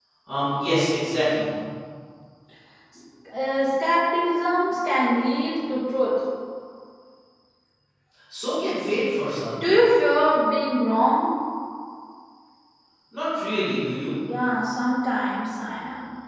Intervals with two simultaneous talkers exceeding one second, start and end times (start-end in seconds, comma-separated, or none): none